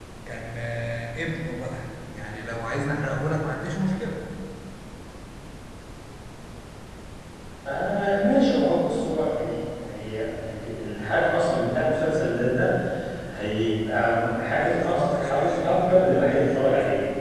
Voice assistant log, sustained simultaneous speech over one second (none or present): present